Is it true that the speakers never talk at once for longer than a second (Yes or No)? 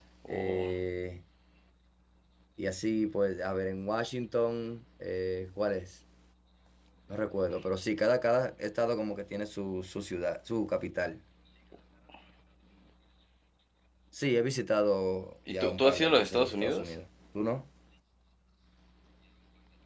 No